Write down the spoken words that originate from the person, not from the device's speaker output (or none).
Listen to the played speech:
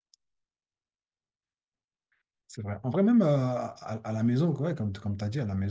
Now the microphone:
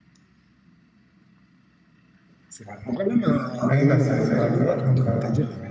Oui, non, c'est c'est vrai, c'est vrai. Donc, euh,